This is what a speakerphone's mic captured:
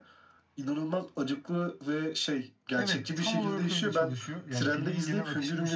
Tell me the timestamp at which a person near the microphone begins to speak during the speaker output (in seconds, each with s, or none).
2.8 s